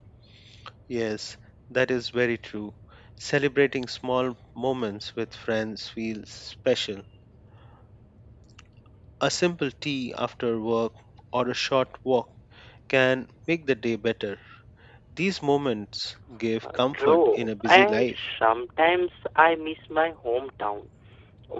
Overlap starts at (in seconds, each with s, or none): 16.6 s